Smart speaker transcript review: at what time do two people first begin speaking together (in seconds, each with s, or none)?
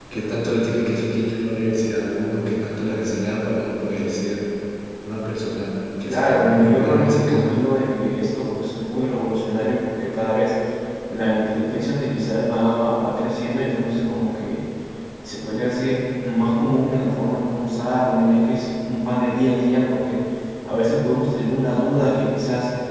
6.1 s